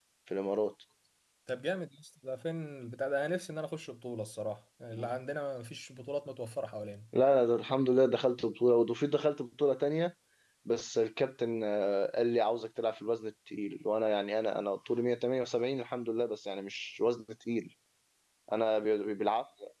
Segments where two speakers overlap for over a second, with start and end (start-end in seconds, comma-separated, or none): none